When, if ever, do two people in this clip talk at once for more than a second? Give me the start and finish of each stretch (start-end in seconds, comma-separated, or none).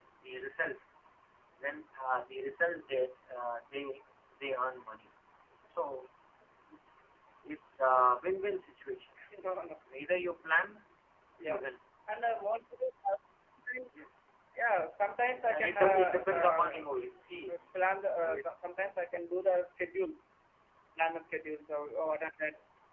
15.4-16.8